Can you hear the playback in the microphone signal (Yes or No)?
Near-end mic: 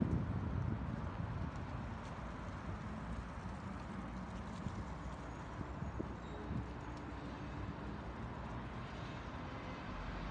No